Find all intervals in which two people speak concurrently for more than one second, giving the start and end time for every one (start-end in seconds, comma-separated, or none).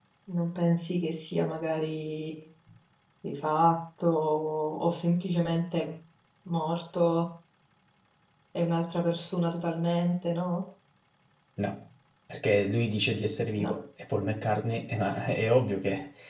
none